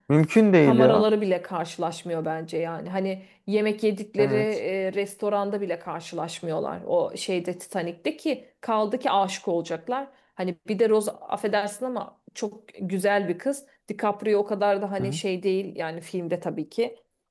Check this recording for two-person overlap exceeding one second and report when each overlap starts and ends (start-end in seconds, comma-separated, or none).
none